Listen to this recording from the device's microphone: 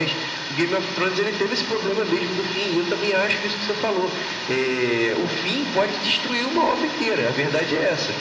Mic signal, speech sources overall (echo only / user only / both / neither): echo only